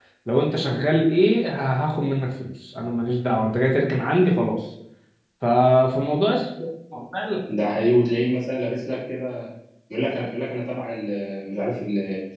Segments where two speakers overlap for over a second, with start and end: none

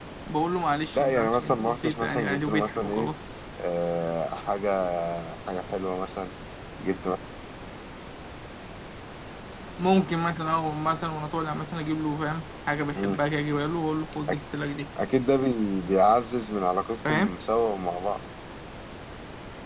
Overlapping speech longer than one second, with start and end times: 0.9-3.1

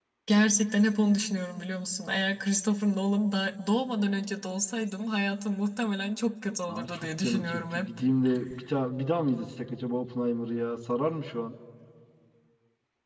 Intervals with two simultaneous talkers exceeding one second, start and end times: 6.7-7.9

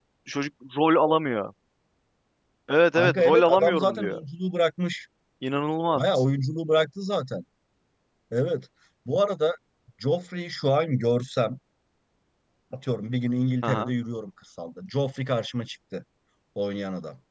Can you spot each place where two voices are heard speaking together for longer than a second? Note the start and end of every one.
3.0-4.2

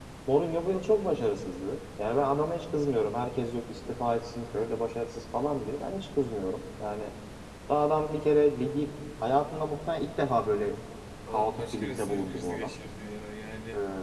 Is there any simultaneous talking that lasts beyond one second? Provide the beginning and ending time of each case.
11.3-12.7

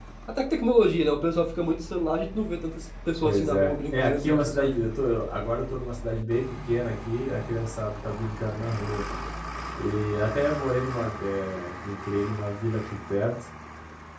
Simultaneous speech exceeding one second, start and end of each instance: 3.2-4.8

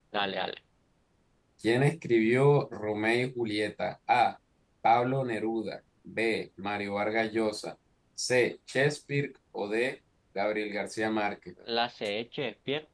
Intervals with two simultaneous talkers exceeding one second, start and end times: none

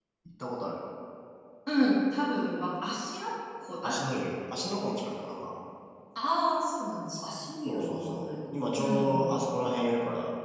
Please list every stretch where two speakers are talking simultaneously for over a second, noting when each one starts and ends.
7.7-9.3

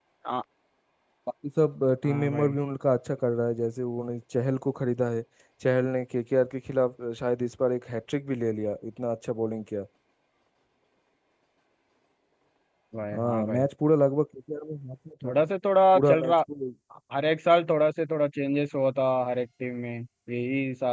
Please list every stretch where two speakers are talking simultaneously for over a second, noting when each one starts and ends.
none

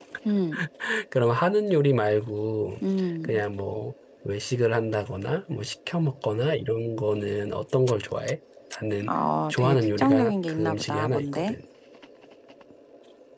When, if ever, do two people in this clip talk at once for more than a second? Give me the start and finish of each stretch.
9.5-11.6

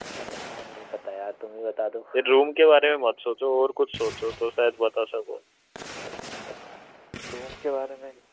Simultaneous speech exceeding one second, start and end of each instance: none

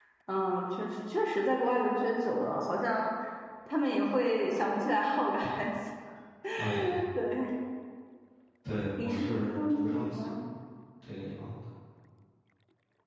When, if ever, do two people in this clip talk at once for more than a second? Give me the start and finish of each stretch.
9.0-10.4

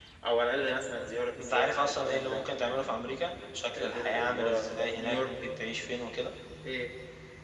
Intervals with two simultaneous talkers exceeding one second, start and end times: 1.4-3.0, 3.7-5.3

